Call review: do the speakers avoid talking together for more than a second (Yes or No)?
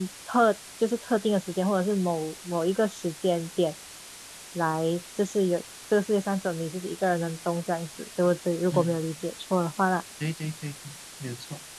Yes